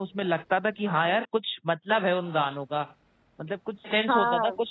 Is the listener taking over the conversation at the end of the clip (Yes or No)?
No